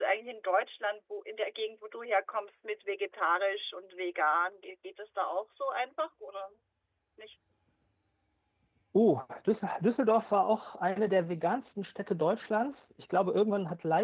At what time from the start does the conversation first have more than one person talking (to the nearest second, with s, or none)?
none